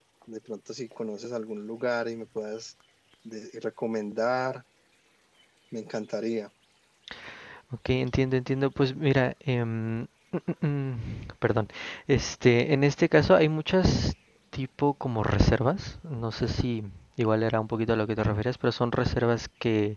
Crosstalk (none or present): none